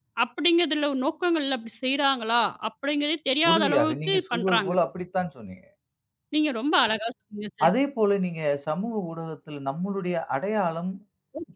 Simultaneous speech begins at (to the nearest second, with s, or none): 3 s